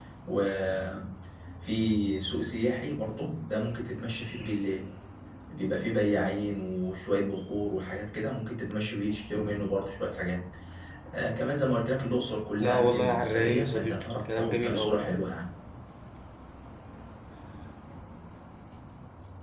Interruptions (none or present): present